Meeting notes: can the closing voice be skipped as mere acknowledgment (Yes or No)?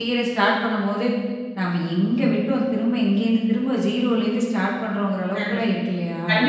No